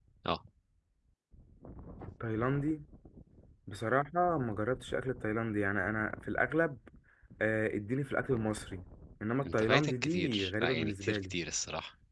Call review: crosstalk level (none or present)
present